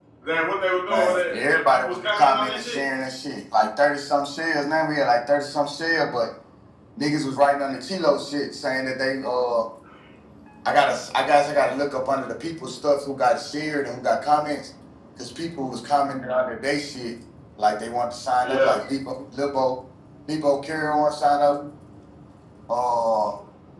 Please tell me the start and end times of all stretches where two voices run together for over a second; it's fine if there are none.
0.9-2.8

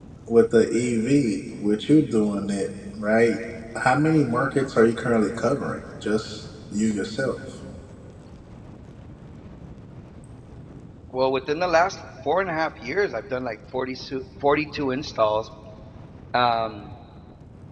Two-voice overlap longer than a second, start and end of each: none

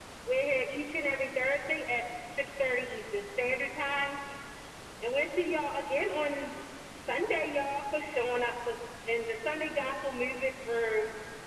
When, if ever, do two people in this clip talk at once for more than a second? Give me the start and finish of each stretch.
none

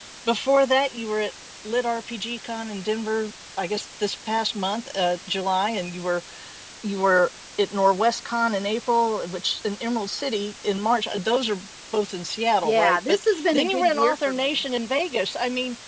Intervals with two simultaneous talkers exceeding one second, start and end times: 12.6-14.6

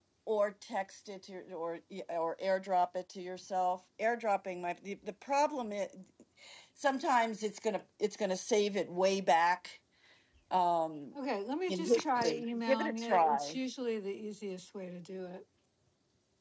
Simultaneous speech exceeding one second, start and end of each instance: 11.7-13.6

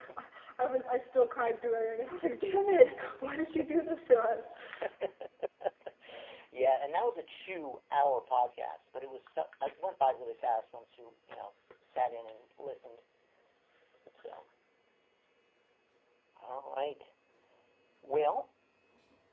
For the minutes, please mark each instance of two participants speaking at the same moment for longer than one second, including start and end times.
none

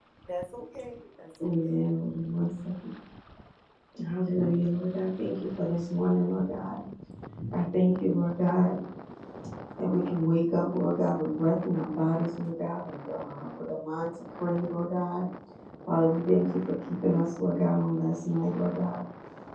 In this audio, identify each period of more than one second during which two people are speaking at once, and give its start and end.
none

